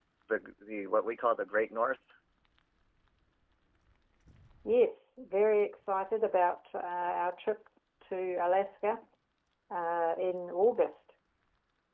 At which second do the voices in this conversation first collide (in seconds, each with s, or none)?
none